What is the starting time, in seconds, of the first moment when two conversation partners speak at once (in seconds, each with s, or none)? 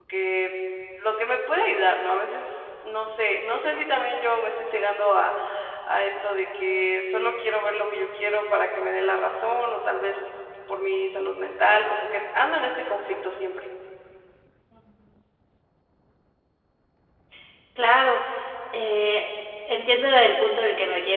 none